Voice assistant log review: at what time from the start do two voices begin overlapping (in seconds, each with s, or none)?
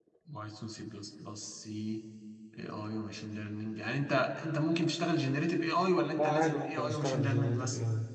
6.2 s